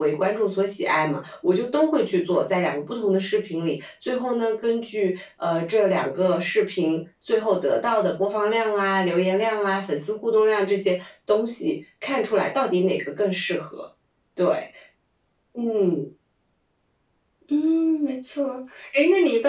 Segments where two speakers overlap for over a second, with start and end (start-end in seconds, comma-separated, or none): none